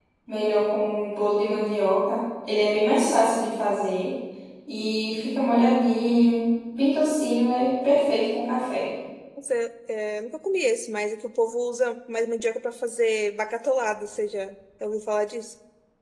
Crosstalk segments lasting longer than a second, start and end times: none

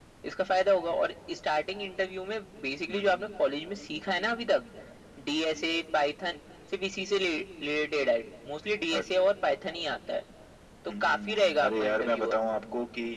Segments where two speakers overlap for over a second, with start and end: 11.0-12.3

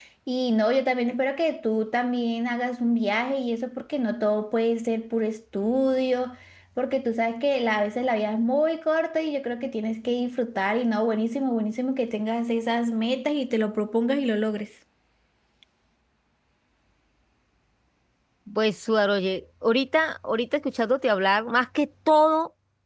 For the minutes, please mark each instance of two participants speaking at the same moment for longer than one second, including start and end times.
none

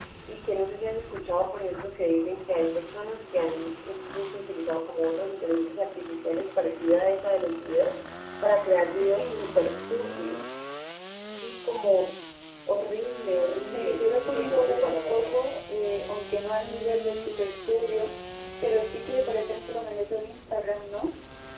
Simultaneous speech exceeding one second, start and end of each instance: 13.6-15.3

